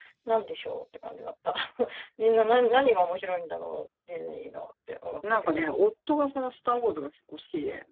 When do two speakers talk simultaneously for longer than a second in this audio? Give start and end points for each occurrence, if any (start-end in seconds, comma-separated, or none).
none